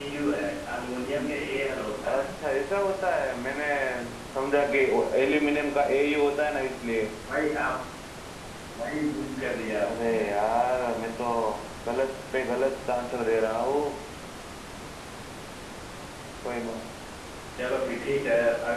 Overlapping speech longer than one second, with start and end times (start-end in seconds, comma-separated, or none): none